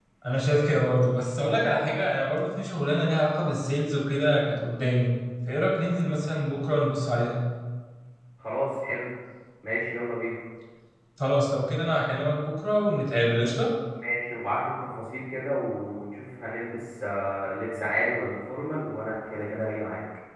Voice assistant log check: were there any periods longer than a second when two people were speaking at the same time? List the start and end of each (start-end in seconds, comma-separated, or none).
none